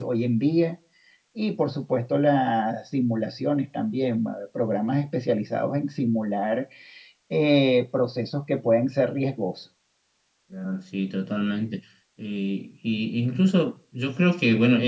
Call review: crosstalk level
none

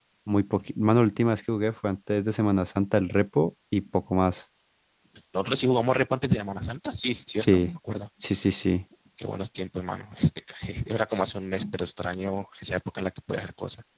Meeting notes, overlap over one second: none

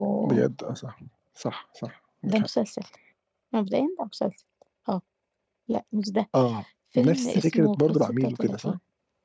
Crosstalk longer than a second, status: present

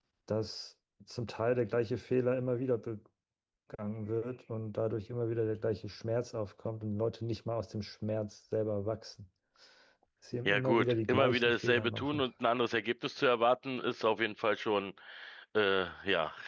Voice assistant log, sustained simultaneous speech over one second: present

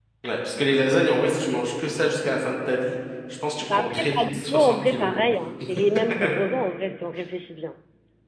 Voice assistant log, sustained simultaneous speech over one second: present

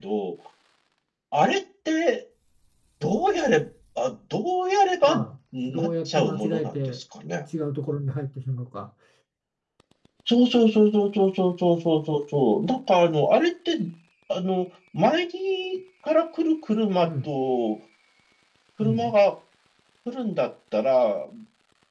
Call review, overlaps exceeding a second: present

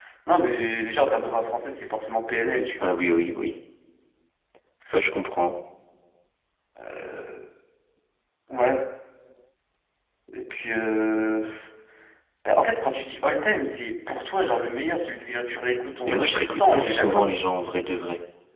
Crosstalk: present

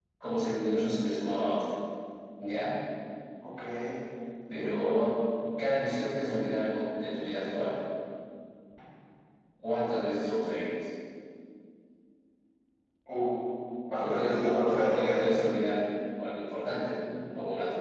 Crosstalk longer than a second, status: present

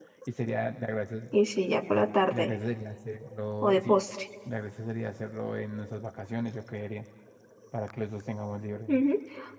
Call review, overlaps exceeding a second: none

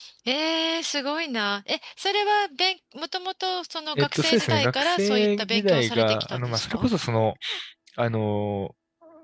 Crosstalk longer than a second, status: present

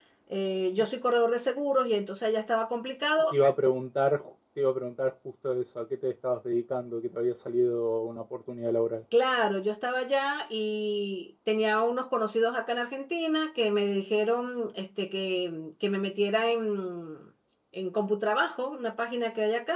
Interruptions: none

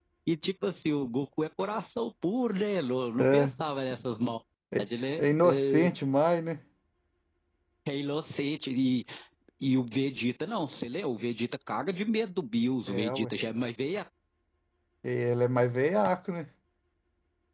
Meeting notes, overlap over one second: none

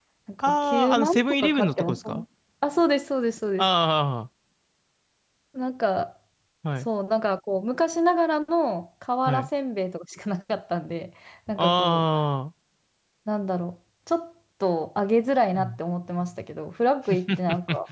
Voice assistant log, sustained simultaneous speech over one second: present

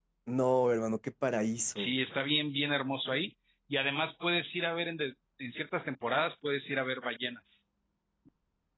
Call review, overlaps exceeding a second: none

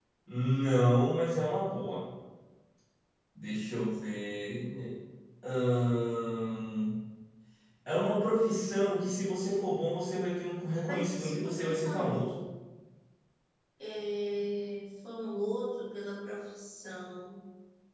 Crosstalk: present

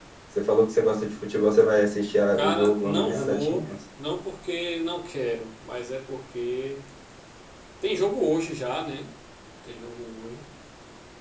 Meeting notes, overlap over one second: present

